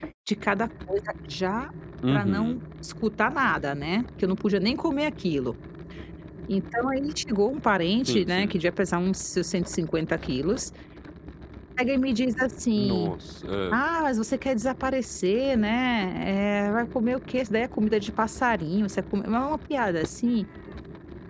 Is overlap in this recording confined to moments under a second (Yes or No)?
Yes